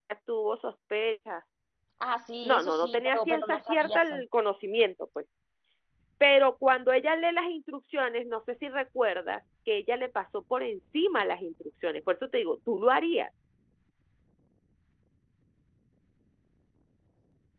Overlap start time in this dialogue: 2 s

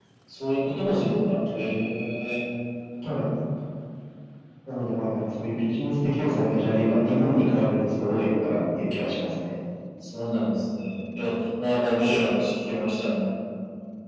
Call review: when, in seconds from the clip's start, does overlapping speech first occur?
none

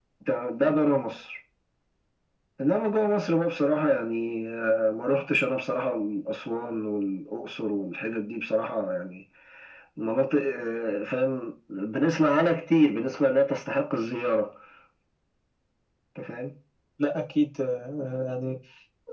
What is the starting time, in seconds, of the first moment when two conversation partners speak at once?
none

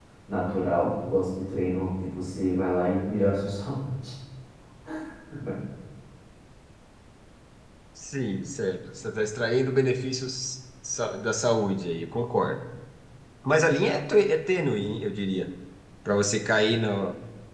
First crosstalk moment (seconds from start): none

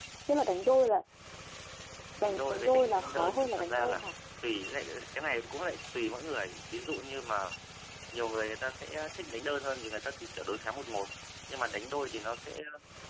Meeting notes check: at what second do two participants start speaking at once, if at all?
2 s

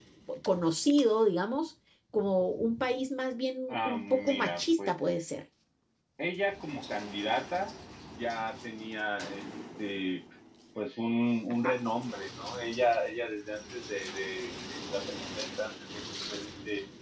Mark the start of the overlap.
4 s

